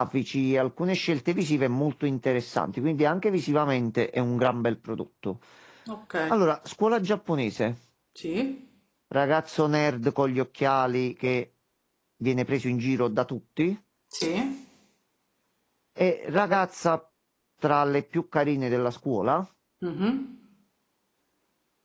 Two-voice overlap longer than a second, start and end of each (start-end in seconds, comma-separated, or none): none